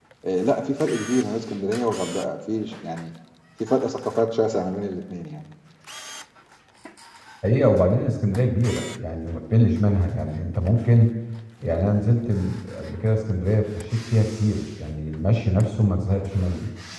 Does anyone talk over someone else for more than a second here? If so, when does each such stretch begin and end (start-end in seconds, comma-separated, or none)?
none